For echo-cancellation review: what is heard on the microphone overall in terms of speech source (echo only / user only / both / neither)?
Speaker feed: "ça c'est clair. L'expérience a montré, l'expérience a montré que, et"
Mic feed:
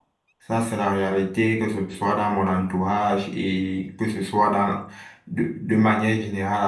user only